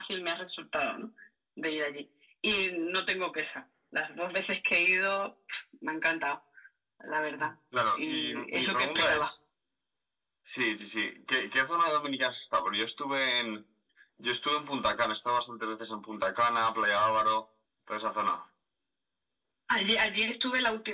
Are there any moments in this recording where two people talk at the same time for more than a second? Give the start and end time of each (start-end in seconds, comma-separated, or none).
7.9-9.3